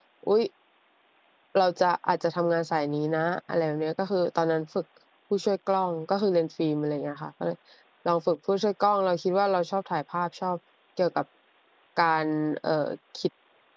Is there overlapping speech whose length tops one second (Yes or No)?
No